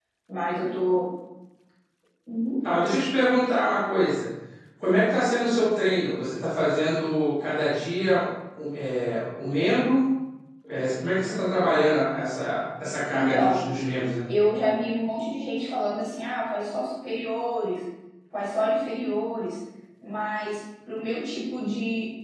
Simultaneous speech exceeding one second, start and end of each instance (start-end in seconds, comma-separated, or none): none